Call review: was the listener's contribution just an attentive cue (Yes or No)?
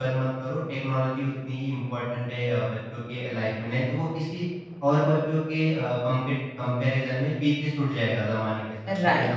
No